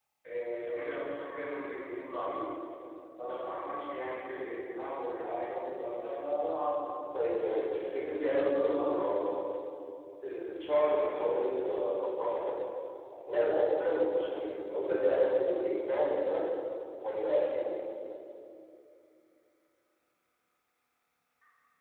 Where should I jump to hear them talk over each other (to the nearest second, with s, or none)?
8 s